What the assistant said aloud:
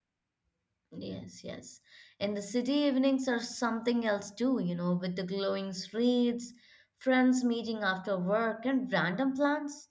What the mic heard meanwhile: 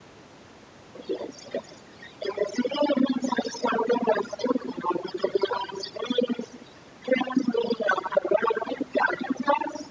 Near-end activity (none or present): none